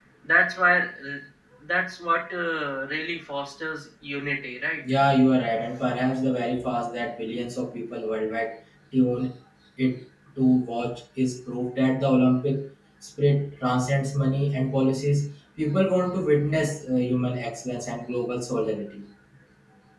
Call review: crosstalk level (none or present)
none